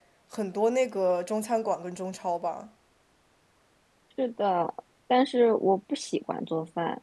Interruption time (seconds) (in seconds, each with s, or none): none